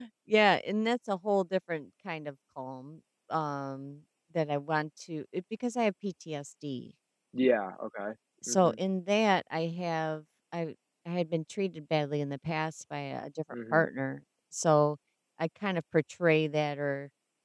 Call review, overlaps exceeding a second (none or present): none